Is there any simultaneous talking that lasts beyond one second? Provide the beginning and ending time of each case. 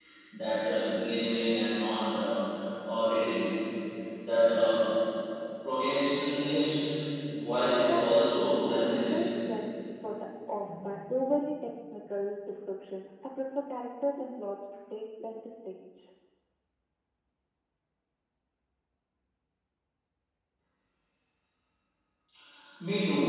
7.9-9.1

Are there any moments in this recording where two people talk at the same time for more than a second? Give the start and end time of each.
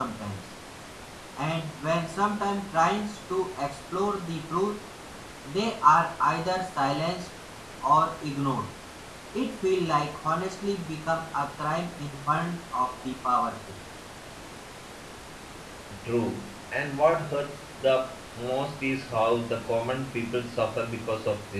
none

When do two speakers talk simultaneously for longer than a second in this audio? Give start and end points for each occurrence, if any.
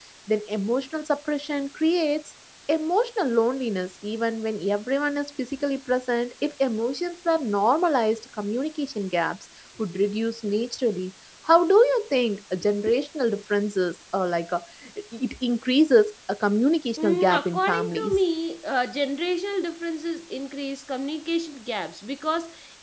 17.0-18.2

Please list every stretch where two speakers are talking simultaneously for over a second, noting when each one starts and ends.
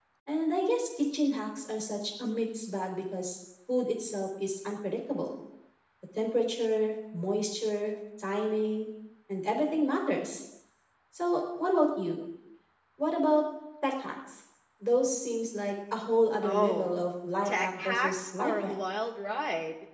17.4-18.7

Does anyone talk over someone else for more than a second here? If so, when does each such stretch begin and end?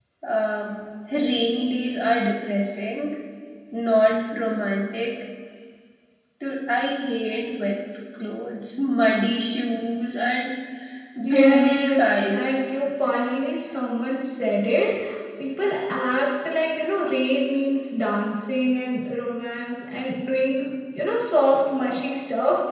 11.3-12.6

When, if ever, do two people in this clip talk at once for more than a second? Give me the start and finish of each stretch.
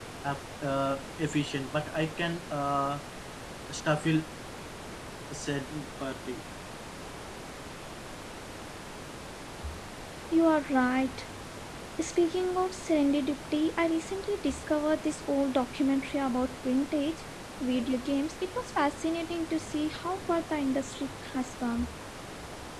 none

